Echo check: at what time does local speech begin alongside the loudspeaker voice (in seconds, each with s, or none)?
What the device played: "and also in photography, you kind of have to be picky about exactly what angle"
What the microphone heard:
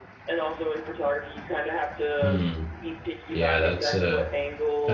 2.2 s